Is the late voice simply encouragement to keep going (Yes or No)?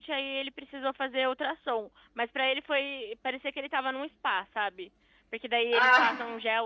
Yes